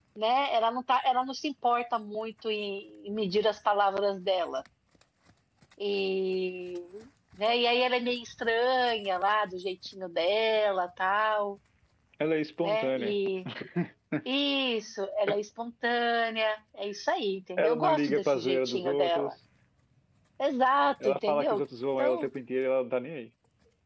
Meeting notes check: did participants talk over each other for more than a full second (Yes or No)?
Yes